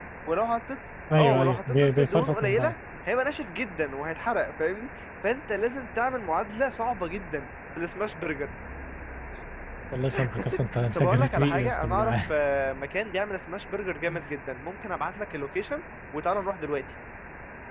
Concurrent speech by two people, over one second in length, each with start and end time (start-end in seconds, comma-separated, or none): 1.2-2.7, 11.0-12.3